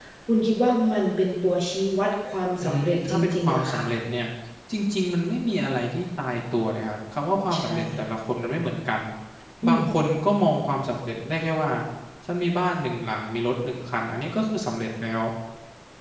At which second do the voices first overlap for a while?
3 s

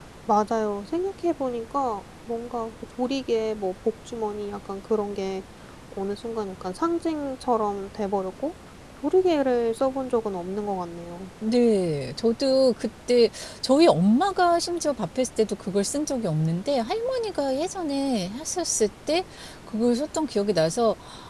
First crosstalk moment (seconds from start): none

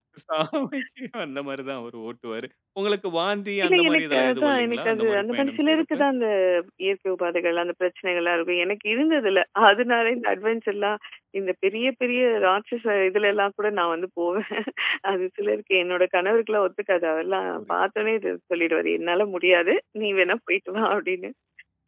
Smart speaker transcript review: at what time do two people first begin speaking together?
4 s

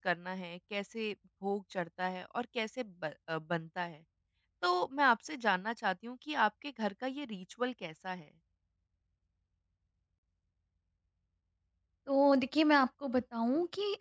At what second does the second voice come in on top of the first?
none

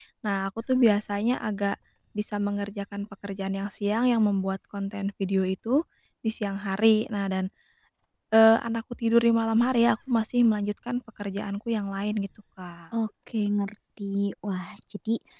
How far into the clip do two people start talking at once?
none

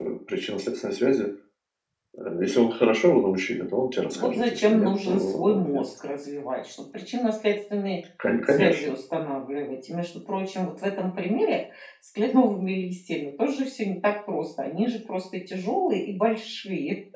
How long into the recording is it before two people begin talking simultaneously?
4 s

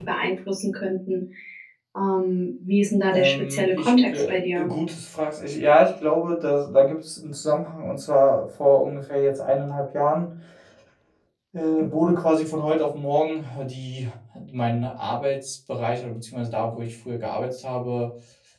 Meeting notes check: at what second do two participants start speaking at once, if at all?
3 s

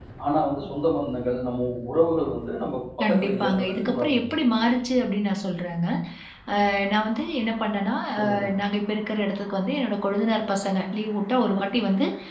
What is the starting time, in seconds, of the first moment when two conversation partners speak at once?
3 s

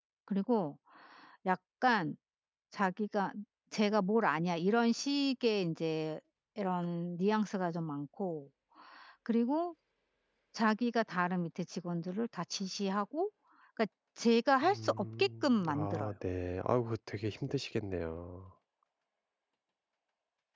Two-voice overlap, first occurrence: 15 s

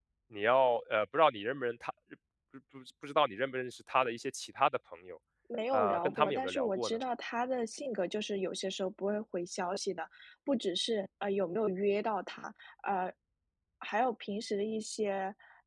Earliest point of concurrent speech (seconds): 6 s

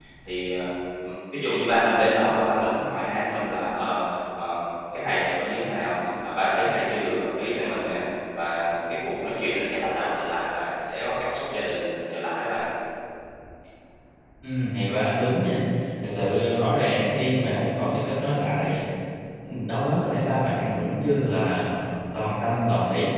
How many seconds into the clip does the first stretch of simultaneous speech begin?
none

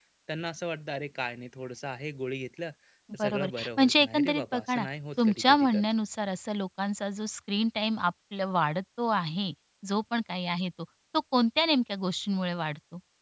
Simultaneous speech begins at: 3 s

